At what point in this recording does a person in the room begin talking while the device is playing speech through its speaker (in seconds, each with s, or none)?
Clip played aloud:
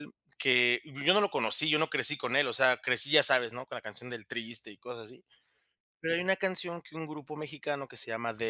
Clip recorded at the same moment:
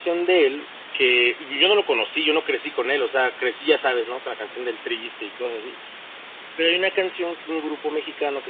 none